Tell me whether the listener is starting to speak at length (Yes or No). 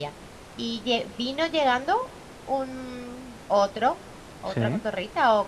No